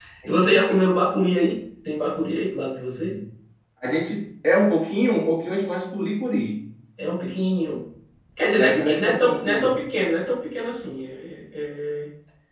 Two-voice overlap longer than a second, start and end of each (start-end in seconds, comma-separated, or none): 8.6-9.8